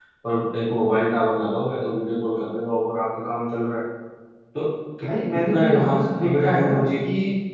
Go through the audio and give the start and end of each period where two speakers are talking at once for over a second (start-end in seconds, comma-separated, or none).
5.0-6.9